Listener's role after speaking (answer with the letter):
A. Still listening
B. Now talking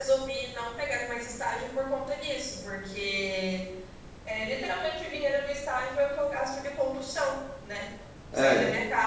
A